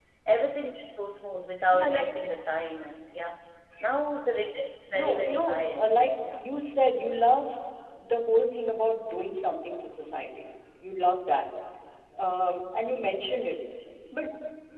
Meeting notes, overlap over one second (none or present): present